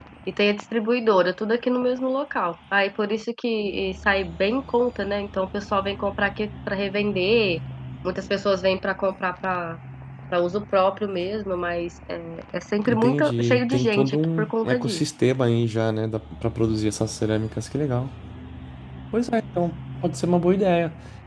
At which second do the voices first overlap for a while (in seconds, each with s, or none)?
12.8 s